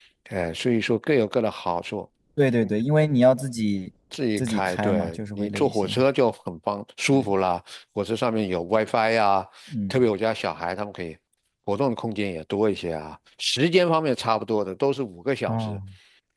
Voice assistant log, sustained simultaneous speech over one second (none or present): present